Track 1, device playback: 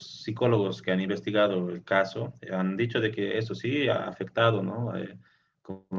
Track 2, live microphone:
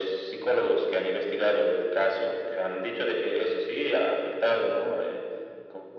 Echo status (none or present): present